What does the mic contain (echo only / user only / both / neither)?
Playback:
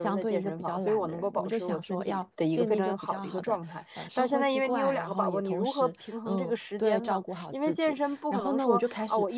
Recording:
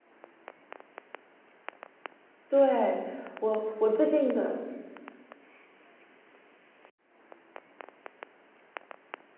user only